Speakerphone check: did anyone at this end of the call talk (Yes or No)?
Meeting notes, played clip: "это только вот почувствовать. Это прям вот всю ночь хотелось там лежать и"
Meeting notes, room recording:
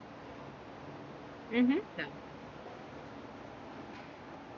Yes